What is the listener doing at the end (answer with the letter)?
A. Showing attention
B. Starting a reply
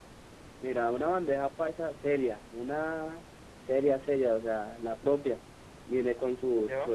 A